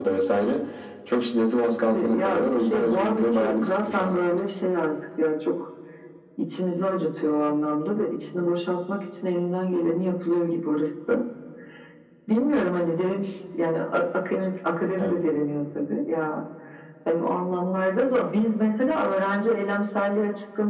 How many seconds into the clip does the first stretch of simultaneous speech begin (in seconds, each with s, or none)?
1.9 s